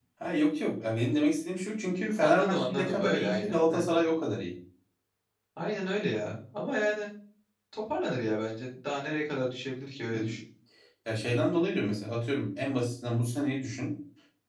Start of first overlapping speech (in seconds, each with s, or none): 2.2 s